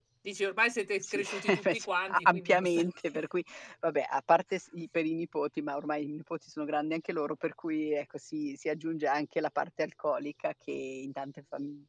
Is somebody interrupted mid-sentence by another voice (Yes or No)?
Yes